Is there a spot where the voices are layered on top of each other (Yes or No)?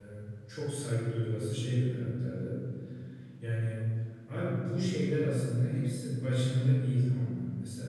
No